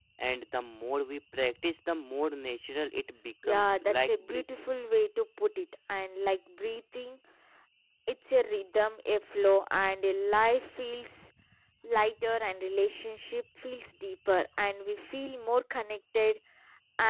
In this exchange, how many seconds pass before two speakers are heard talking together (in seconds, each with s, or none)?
3.4 s